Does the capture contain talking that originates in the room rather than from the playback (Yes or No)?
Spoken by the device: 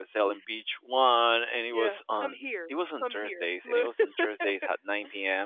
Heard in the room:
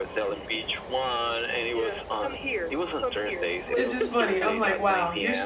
Yes